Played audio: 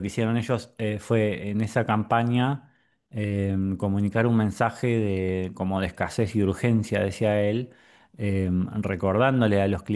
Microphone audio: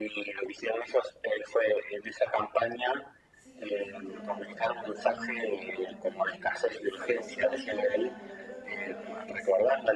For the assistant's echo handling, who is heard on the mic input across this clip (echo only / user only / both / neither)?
both